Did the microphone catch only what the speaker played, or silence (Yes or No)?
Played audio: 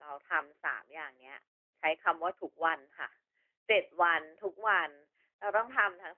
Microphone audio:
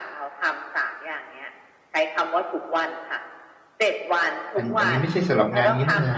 No